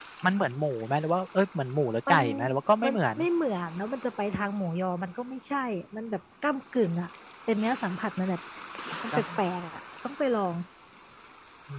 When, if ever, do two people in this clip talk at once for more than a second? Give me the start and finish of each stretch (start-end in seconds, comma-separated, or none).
none